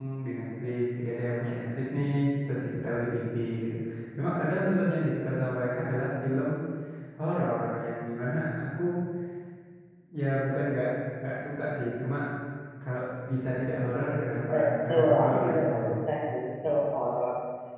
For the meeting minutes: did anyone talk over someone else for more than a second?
Yes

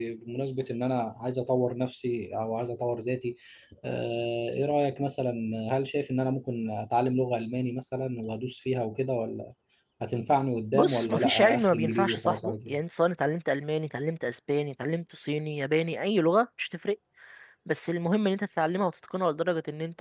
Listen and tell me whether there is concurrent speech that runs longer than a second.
Yes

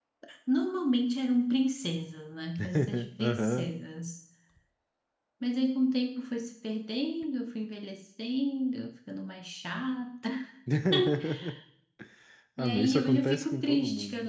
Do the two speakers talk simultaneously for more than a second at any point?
Yes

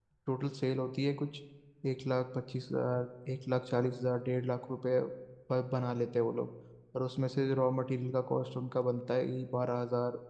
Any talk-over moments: No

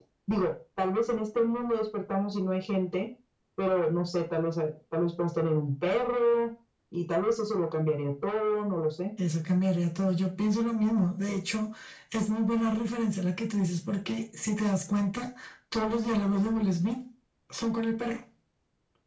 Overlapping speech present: No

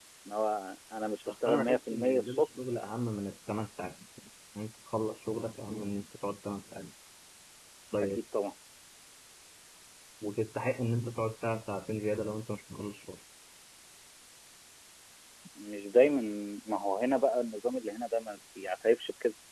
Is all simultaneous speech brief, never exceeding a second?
No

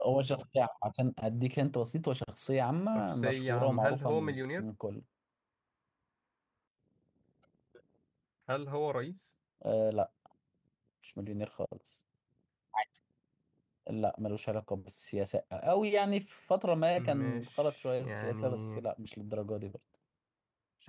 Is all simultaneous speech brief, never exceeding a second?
No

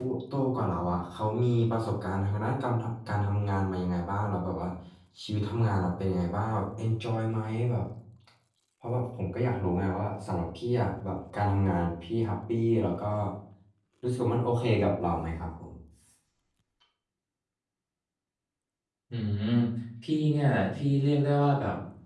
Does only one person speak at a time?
Yes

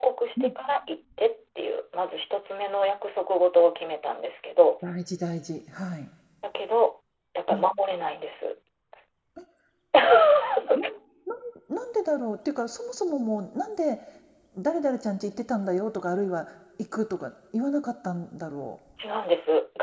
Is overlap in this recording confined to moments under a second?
Yes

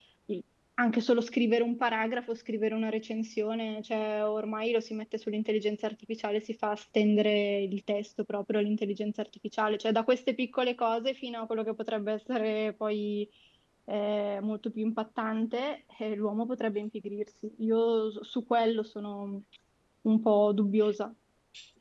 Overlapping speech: No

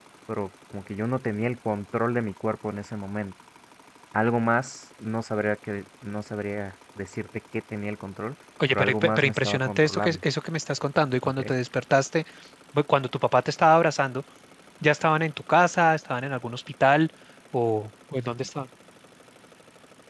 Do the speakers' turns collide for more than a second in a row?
Yes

